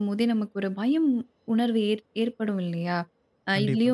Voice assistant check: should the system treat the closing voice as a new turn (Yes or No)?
No